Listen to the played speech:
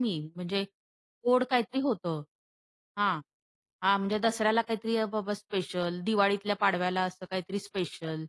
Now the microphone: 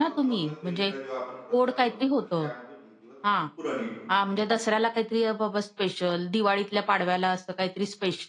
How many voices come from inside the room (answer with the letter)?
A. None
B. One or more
B